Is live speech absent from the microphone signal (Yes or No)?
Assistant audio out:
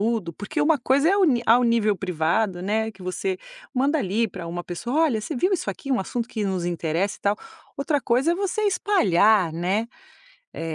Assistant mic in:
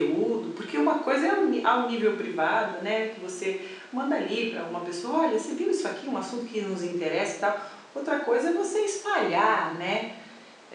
Yes